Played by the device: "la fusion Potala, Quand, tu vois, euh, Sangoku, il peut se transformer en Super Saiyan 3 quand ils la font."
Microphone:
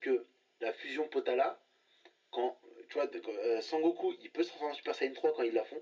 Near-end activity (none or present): none